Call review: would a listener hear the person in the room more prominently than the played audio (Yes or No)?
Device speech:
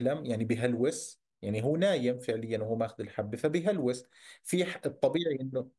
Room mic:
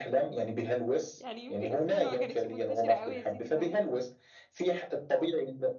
No